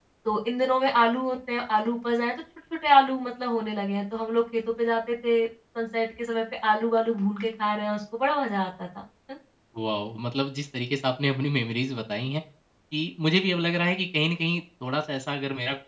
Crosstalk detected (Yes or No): No